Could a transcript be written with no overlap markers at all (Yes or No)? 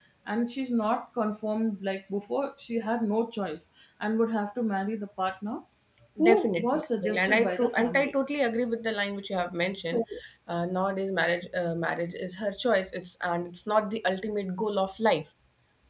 No